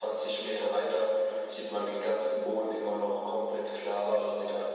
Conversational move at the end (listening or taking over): listening